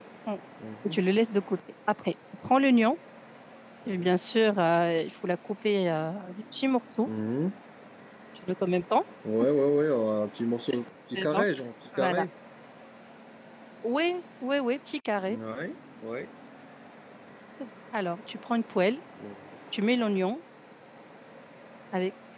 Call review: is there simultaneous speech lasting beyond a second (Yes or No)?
No